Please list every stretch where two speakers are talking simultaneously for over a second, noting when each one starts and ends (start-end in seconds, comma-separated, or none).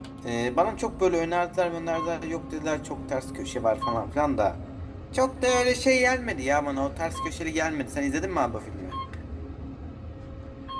none